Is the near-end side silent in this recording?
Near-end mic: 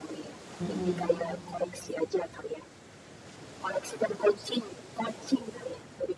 No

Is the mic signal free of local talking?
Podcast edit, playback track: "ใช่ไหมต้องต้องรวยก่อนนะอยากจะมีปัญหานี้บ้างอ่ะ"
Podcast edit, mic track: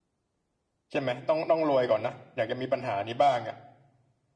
Yes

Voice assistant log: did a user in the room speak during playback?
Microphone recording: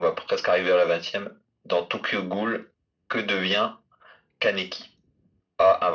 No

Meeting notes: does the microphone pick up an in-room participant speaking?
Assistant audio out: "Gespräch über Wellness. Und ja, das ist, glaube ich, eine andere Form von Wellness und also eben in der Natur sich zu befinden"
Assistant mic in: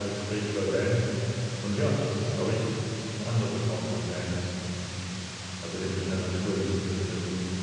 No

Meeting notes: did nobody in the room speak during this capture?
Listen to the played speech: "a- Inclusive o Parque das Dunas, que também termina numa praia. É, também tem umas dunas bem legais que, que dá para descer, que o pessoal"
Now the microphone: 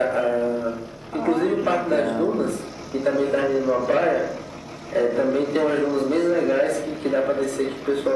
No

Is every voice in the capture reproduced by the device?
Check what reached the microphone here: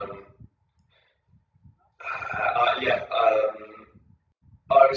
Yes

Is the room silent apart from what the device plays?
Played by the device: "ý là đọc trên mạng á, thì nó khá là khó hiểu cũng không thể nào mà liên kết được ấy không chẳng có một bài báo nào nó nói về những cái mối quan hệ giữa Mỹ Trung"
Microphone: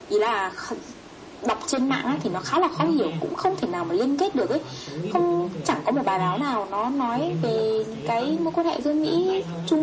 No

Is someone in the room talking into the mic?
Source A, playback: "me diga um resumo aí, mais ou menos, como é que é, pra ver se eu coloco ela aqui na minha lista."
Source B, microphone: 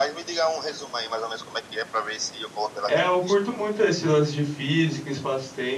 Yes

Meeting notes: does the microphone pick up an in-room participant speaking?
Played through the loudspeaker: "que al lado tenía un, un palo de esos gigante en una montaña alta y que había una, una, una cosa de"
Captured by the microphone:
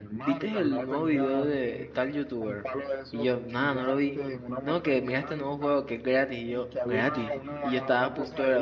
Yes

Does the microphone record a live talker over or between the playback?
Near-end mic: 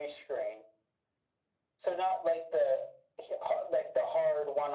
No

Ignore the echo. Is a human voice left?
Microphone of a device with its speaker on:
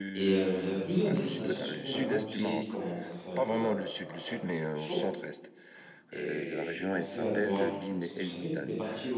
Yes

